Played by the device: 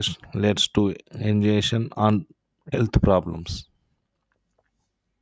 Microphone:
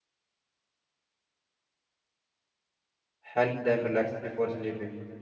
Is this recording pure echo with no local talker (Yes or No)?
No